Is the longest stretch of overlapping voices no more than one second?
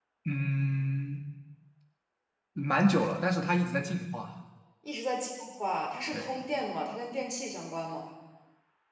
Yes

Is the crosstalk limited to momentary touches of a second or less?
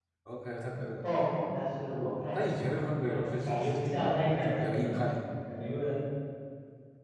No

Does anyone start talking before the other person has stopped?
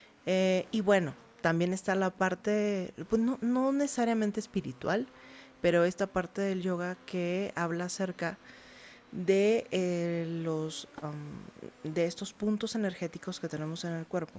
No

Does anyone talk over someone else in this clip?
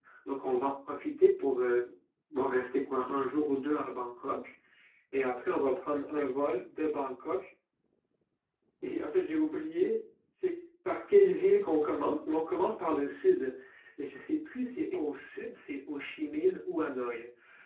No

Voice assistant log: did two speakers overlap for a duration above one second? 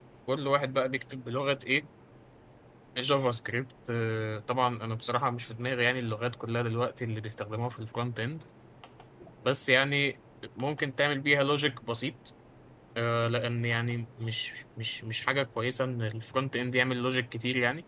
No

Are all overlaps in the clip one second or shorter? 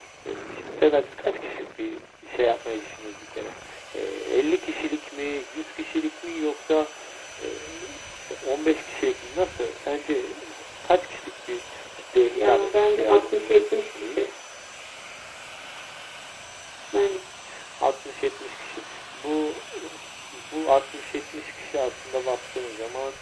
No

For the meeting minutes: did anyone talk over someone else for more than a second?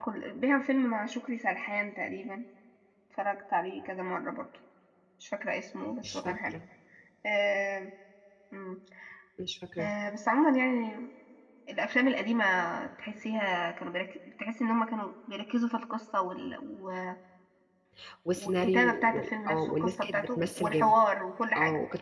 Yes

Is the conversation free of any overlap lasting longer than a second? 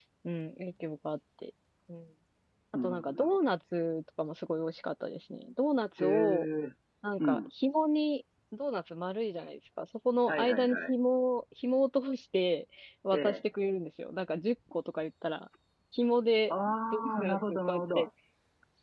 No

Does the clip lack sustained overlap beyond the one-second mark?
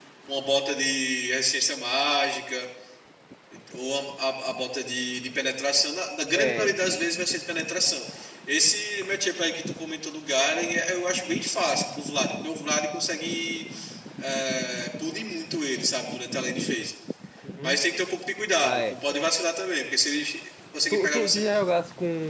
Yes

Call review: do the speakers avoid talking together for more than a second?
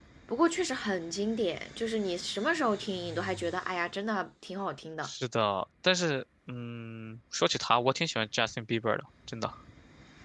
Yes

